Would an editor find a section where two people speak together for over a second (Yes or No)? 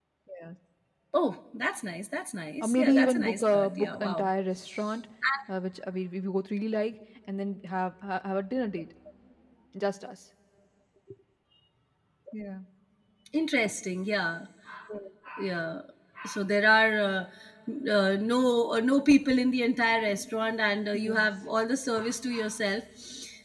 Yes